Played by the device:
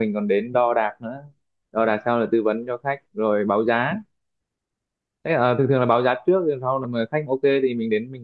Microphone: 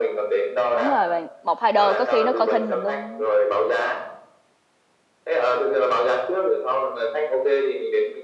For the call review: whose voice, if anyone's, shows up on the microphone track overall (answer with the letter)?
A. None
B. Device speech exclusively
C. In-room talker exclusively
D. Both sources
D